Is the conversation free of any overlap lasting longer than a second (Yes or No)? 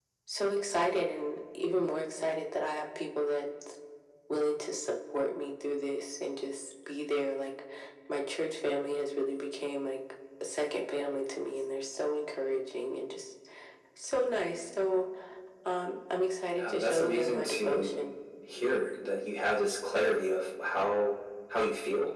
No